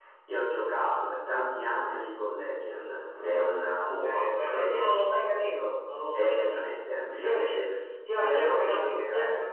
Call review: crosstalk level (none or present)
present